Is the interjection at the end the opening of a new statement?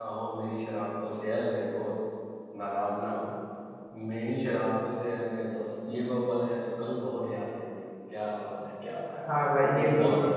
Yes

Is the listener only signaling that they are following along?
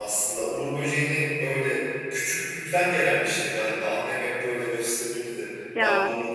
Yes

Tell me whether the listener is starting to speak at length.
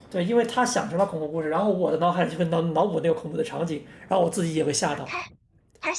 Yes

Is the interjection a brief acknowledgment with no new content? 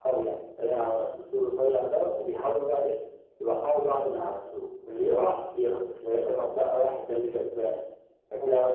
Yes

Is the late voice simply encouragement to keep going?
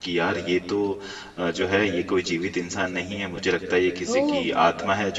Yes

